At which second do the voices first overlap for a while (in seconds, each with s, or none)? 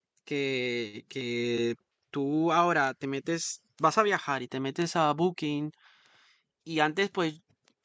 none